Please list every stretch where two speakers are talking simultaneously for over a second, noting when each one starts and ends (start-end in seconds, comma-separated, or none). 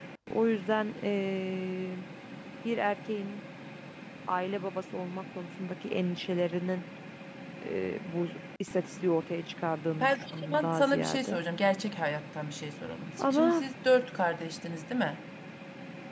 10.0-11.4